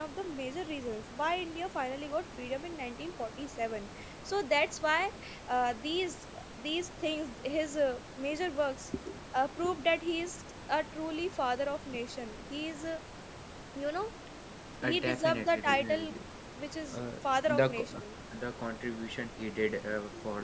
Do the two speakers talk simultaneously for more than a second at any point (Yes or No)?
Yes